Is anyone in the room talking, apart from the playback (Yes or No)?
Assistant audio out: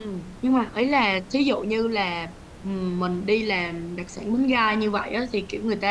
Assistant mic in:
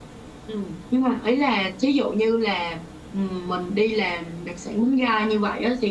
No